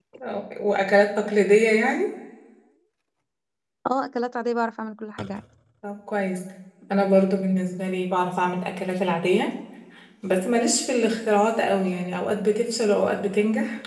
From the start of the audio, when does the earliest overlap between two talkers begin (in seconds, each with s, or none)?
none